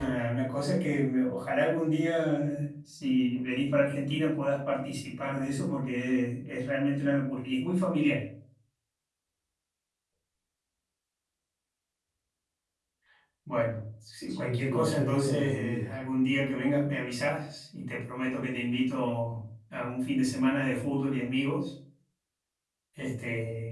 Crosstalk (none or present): present